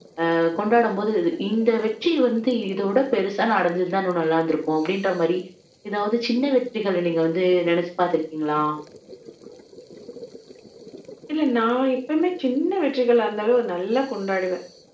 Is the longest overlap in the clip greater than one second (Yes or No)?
No